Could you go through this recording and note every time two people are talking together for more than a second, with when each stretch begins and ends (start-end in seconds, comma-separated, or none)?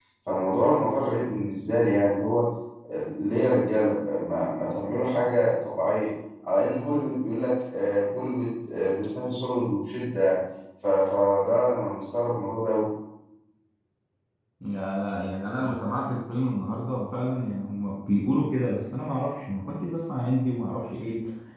none